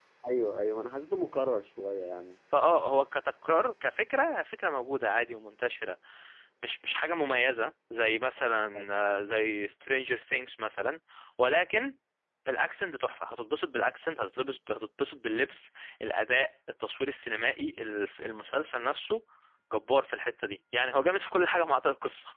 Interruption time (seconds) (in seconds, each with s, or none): none